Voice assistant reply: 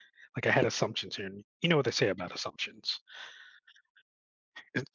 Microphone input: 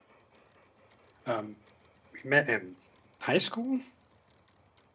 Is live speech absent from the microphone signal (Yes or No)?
No